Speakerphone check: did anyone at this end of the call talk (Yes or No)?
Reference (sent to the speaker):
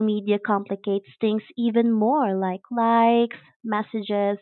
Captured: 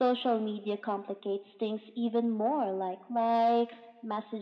No